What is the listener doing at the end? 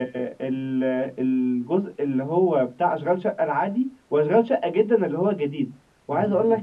listening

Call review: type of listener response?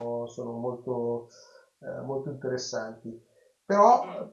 listening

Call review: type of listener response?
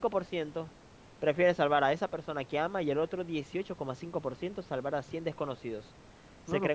taking over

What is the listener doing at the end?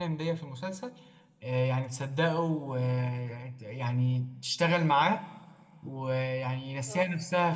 listening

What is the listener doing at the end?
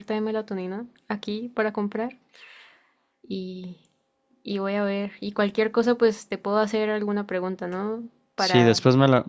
taking over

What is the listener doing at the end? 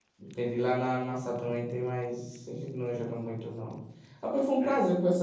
listening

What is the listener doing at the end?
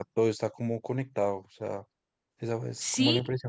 taking over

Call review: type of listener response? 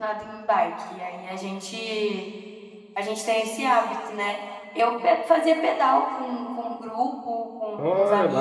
taking over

